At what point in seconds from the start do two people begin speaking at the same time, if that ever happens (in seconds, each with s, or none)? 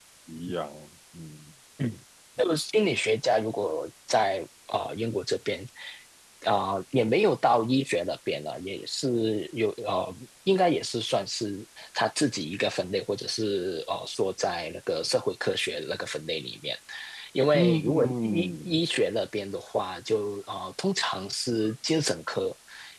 17.5 s